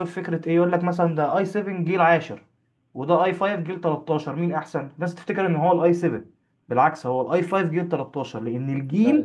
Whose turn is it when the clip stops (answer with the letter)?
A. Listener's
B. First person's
A